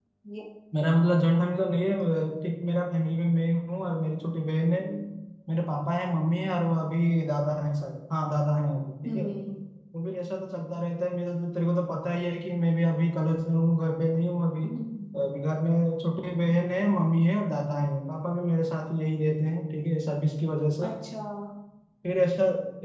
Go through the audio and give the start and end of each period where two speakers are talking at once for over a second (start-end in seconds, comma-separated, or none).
none